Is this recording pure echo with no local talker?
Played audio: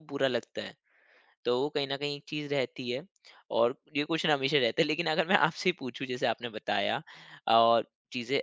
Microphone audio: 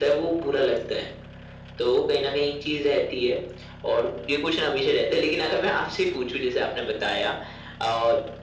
Yes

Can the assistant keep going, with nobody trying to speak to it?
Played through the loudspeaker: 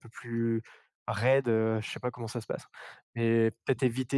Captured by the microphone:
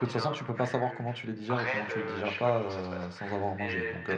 No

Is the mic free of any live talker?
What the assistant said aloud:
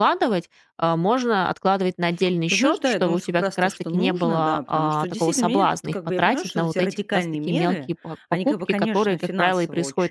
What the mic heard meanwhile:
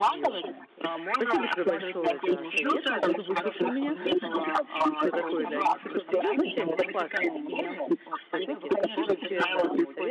No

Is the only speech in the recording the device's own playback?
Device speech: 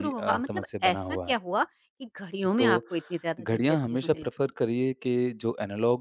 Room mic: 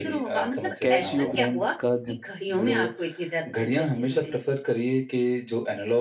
No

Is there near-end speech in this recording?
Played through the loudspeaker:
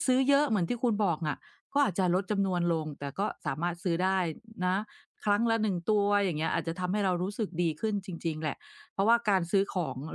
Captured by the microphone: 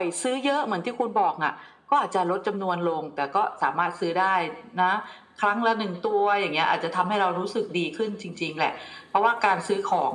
No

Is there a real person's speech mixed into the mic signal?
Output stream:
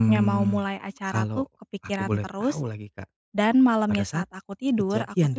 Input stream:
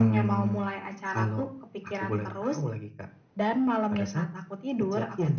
No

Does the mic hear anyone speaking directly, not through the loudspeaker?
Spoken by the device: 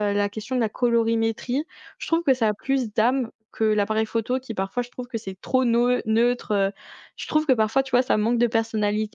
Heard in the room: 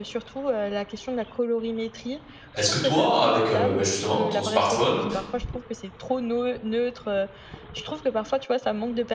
Yes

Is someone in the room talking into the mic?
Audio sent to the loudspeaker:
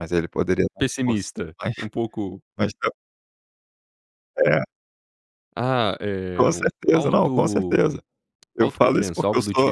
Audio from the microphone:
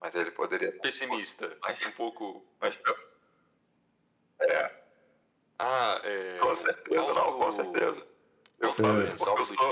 Yes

